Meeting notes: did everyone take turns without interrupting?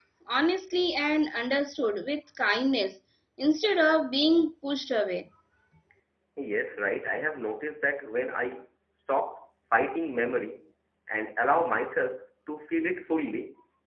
Yes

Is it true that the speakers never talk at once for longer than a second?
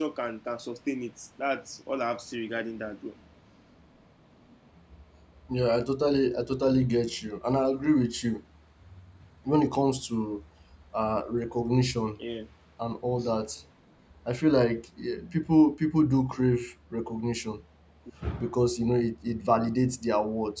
Yes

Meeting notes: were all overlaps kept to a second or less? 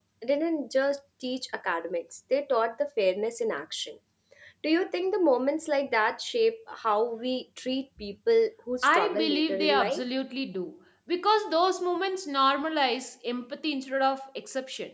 No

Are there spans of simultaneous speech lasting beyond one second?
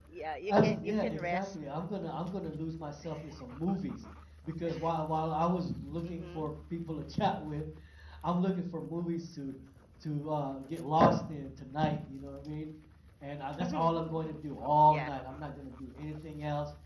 Yes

